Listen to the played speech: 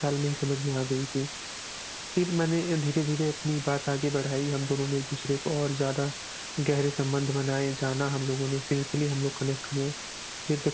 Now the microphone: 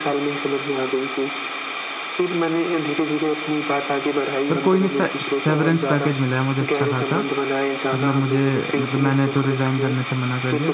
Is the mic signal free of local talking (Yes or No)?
No